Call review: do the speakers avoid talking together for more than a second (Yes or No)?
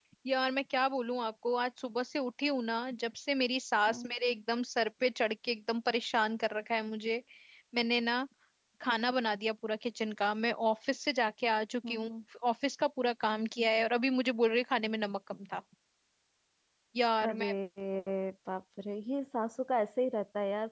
Yes